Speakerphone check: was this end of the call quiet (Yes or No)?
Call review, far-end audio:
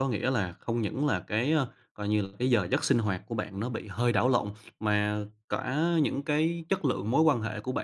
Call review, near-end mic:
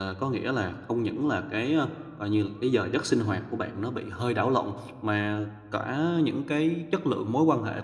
Yes